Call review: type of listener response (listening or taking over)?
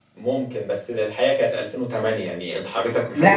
taking over